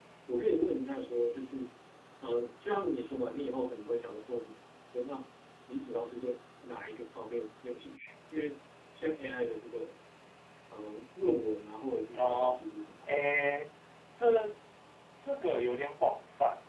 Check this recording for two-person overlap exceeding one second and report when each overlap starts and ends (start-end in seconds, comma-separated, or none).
none